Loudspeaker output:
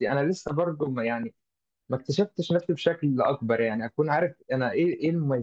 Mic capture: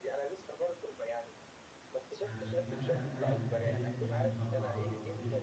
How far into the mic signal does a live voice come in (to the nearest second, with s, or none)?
2 s